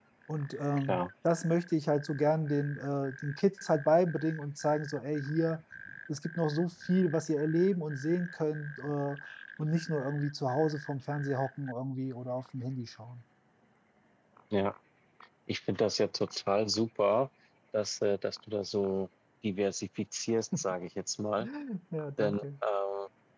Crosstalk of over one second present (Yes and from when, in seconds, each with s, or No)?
No